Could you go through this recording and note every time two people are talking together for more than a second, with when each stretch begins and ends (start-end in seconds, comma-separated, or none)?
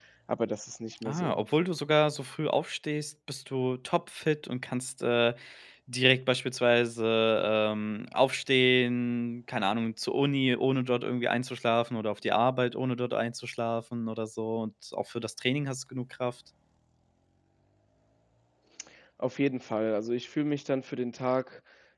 none